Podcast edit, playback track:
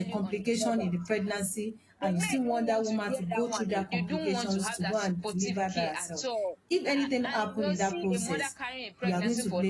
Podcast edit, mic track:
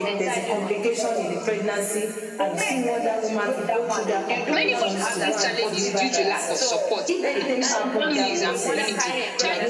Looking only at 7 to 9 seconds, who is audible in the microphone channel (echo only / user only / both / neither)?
both